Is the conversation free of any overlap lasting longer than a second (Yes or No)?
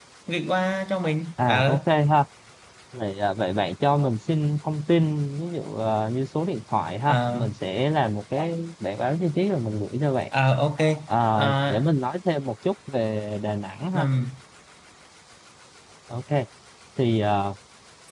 Yes